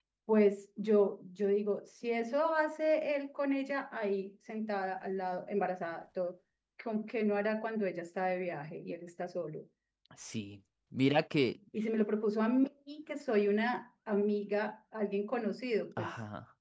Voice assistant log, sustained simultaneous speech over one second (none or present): none